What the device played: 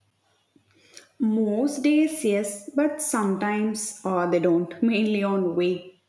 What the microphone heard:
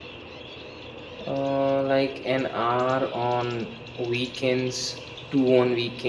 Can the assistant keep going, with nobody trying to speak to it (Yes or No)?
No